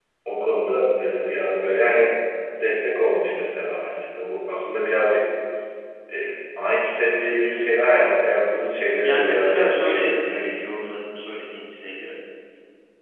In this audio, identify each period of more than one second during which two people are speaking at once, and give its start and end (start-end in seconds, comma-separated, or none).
9.0-10.4